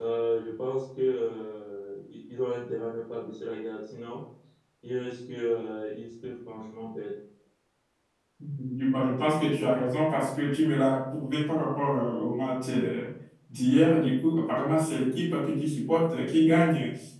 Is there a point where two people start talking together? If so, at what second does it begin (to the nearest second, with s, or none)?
none